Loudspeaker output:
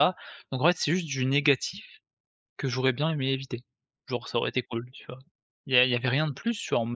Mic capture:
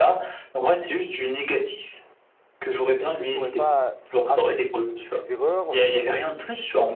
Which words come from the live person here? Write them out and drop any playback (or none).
est-ce que tu aurais pas appris de tes erreurs, de